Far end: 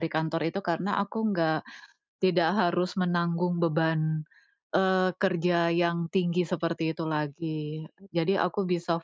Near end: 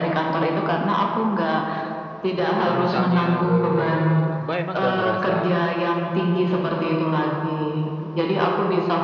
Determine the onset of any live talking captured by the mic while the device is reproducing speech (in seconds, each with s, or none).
2.6 s